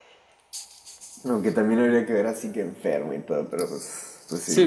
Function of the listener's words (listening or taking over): taking over